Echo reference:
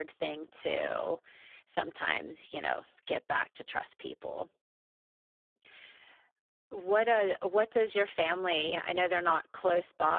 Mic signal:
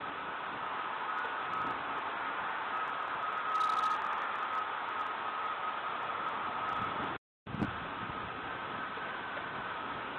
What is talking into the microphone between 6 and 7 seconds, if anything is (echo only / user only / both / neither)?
neither